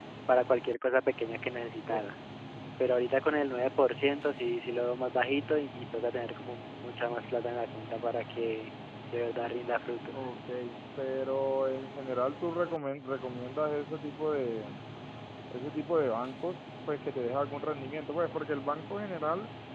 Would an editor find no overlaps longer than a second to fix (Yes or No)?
Yes